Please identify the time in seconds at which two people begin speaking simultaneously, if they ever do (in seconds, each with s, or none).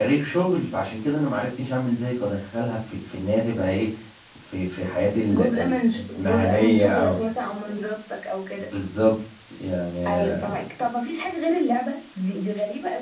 5.3 s